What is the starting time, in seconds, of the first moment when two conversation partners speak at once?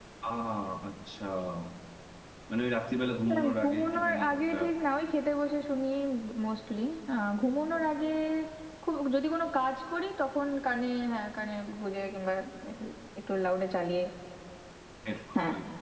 3.3 s

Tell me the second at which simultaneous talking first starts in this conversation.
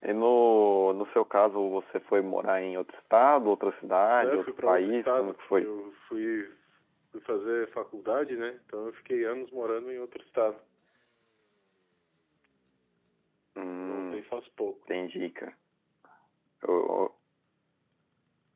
4.2 s

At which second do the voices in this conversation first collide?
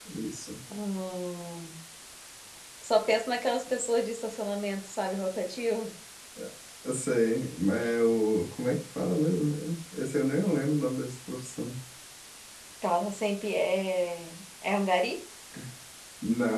none

